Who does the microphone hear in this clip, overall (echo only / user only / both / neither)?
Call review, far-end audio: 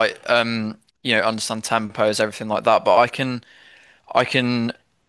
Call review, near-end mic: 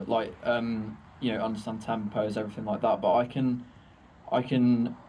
echo only